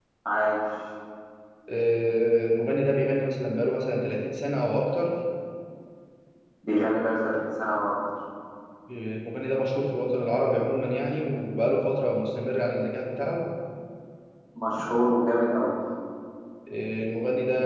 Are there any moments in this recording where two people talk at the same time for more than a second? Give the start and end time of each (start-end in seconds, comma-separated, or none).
none